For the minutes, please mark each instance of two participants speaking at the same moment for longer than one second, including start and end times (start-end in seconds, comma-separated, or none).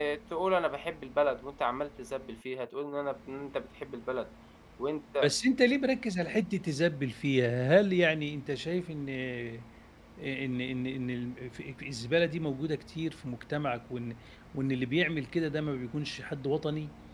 none